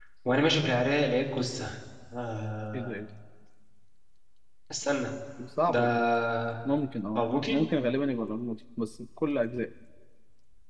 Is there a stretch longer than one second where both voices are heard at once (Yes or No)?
No